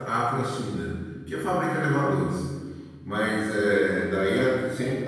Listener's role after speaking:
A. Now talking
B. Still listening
B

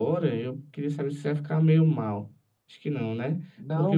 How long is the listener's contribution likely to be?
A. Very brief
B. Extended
A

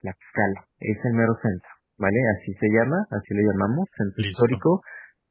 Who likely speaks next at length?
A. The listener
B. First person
B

